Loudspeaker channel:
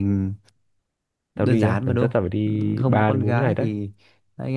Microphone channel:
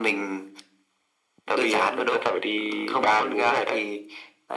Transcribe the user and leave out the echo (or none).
none